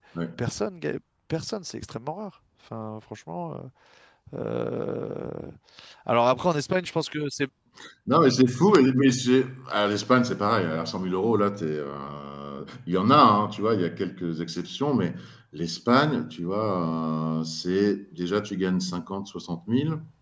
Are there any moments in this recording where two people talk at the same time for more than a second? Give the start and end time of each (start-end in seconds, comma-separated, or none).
none